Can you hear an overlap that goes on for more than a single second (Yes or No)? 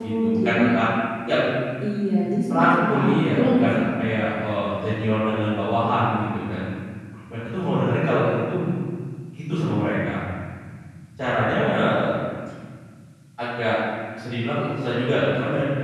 Yes